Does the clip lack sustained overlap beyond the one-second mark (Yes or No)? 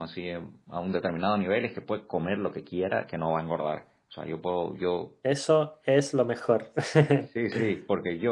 Yes